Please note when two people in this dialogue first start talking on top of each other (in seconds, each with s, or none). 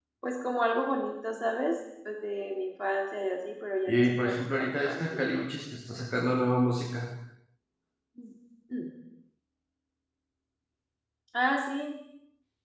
3.9 s